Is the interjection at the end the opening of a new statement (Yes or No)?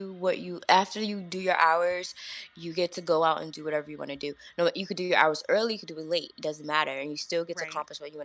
No